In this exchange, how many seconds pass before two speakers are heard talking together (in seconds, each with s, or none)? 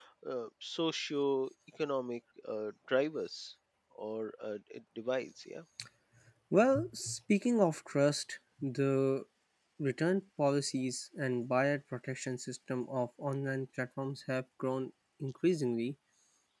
none